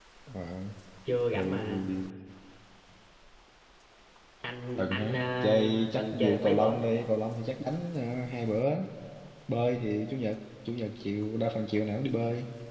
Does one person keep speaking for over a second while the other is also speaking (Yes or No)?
Yes